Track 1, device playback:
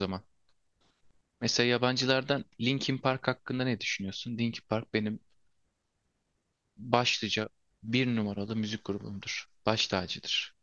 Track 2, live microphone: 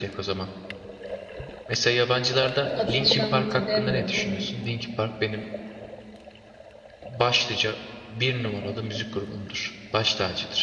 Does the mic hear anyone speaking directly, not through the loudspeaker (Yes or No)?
Yes